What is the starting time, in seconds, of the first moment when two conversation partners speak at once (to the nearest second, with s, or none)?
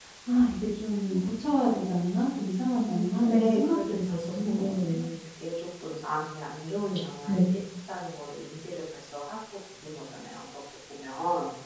3 s